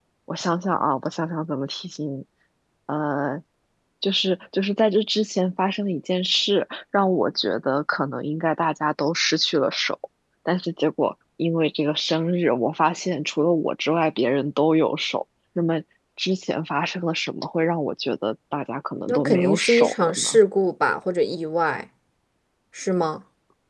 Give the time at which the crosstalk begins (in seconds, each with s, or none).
19.1 s